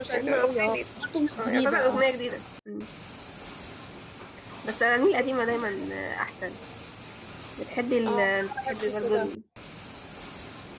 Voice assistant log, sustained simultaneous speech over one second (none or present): present